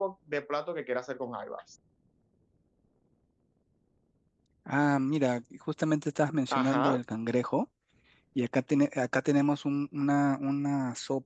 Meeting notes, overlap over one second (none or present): none